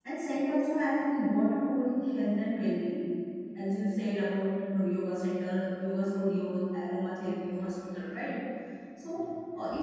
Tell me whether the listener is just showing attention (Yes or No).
Yes